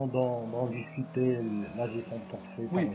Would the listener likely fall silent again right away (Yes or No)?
No